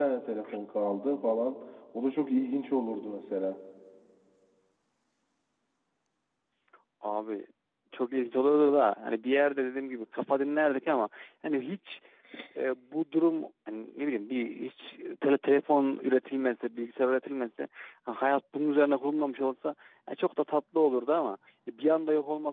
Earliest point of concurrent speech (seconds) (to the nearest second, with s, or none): none